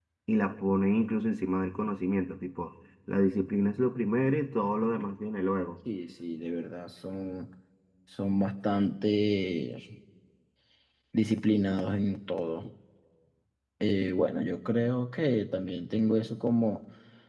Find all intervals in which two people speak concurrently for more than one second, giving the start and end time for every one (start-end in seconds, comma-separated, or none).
none